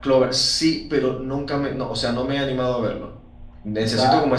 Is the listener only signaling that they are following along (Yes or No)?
Yes